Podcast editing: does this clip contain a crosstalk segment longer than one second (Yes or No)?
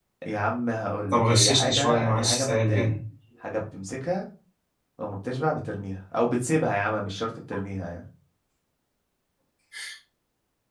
Yes